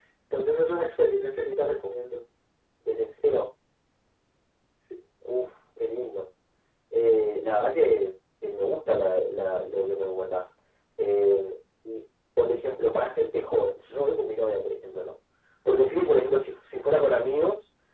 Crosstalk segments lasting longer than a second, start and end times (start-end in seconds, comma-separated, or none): none